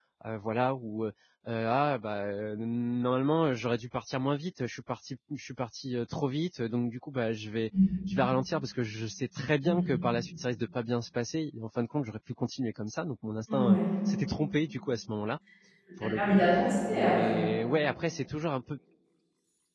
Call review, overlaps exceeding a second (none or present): none